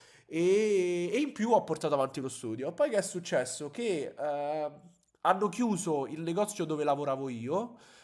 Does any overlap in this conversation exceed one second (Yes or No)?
No